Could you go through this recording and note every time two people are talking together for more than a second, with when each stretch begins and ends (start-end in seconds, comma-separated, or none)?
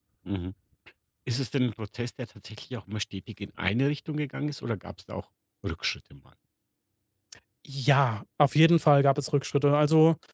none